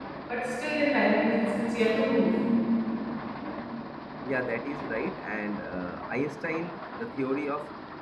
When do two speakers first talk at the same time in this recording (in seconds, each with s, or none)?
none